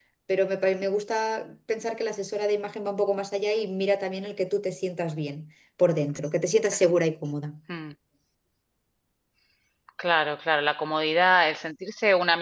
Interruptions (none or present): none